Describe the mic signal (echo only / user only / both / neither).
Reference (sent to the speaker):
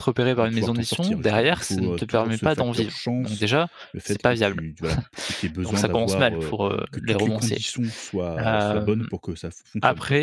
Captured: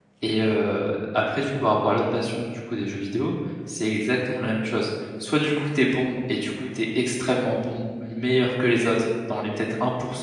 user only